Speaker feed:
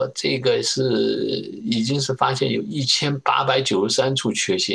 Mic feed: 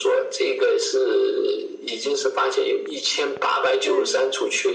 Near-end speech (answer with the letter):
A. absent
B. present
B